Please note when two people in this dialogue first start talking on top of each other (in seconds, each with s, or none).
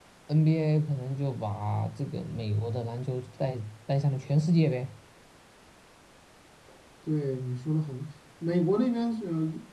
none